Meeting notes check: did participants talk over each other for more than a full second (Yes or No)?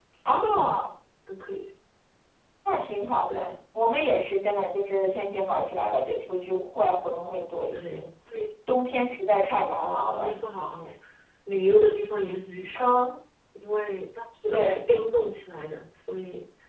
No